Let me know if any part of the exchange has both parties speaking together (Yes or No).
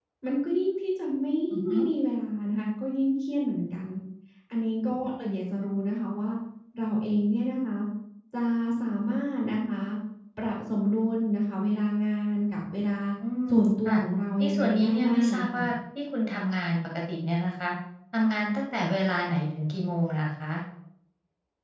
Yes